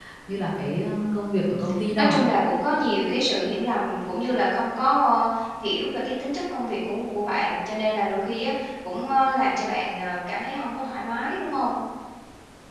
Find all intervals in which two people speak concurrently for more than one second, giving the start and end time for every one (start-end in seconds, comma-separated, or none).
none